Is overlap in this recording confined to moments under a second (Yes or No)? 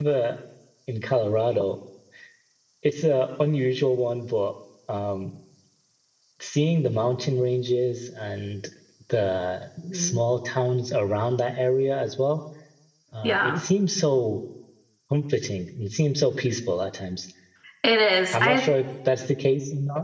Yes